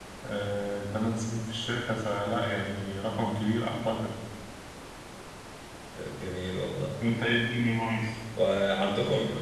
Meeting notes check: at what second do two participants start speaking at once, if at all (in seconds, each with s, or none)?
none